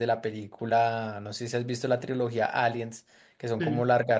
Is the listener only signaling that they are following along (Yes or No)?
Yes